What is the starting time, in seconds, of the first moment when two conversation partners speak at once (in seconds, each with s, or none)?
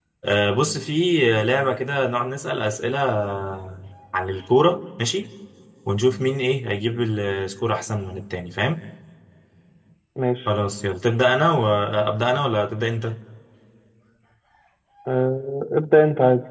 none